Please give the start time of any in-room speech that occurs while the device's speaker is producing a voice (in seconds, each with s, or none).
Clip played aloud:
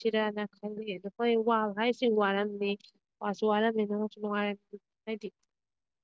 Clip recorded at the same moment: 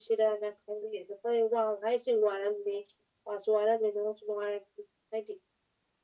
none